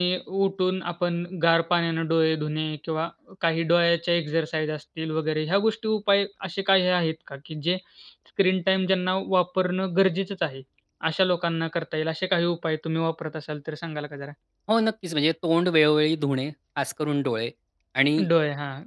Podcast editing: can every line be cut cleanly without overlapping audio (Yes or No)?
Yes